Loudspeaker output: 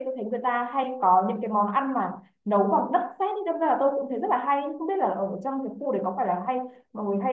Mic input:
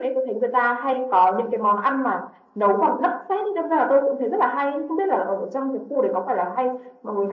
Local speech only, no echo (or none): none